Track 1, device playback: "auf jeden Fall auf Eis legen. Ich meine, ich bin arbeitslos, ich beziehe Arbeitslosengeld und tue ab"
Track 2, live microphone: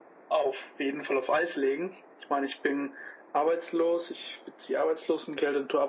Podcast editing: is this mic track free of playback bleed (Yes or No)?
No